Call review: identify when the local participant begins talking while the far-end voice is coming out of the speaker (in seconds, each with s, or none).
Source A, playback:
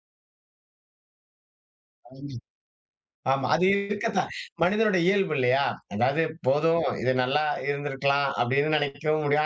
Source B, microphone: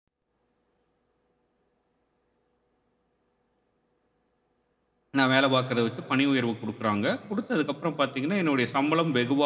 5.2 s